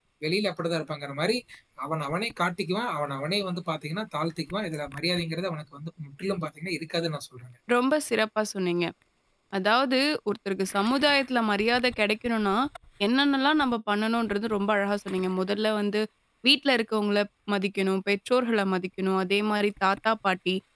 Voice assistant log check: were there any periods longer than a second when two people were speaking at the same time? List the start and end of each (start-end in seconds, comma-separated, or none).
none